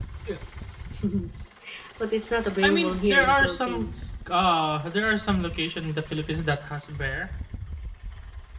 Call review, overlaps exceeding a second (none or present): present